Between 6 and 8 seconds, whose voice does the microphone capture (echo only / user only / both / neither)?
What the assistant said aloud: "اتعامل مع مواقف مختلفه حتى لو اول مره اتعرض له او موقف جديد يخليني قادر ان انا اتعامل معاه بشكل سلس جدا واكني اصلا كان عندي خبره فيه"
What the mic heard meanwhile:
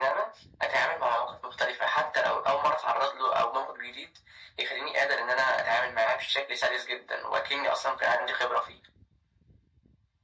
echo only